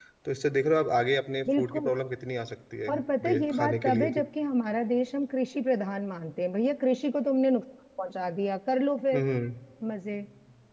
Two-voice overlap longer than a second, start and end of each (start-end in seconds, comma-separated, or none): 2.9-4.2